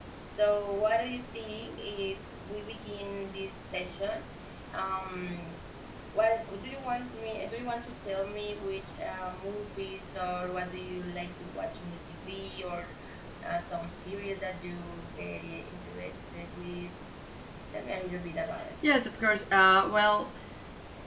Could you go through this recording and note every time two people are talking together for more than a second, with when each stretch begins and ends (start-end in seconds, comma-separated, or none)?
none